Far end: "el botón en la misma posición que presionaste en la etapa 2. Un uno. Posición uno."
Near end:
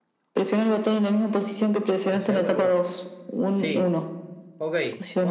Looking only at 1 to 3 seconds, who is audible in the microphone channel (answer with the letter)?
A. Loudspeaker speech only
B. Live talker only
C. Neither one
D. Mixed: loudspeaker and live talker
D